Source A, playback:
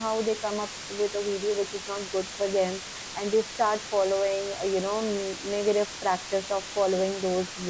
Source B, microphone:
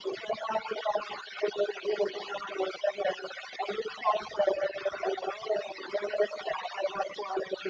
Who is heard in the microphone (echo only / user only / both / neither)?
echo only